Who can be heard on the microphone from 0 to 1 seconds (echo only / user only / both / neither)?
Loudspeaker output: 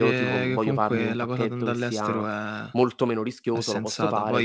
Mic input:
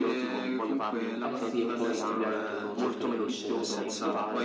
echo only